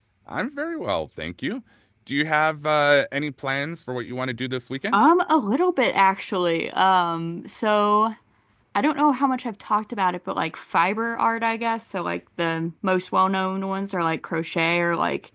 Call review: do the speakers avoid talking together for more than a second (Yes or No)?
Yes